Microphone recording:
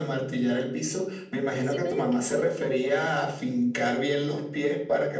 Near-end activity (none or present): present